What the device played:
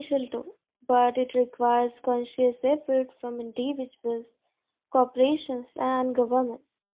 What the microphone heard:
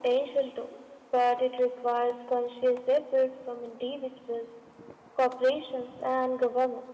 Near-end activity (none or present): none